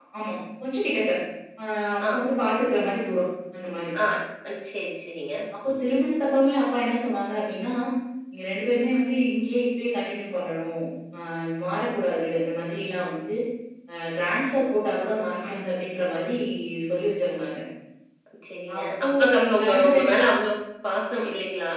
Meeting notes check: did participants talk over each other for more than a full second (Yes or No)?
Yes